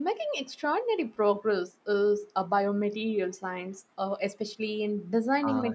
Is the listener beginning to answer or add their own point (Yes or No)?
Yes